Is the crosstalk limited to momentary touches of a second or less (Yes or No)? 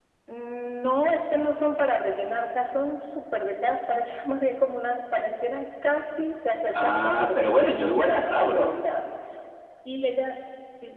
No